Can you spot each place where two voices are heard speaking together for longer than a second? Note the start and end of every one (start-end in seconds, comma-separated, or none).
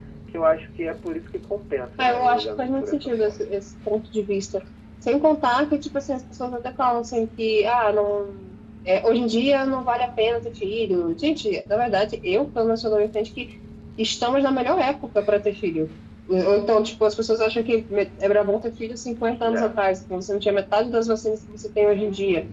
2.0-3.5